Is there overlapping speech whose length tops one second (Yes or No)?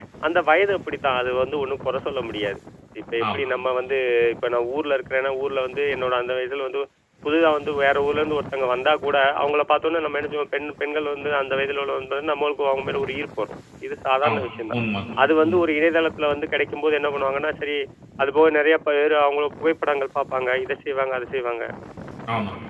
No